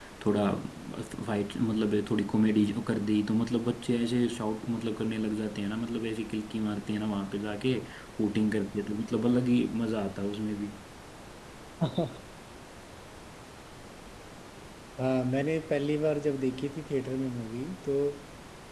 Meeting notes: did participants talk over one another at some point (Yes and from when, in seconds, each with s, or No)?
No